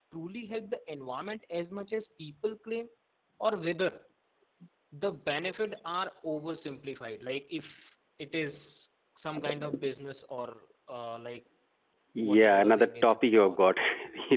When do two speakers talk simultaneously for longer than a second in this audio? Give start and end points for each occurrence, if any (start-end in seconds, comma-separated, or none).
12.2-13.6